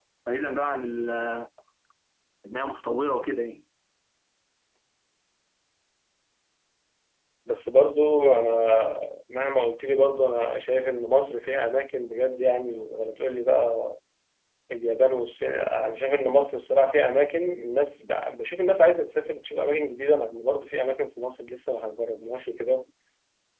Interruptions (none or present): none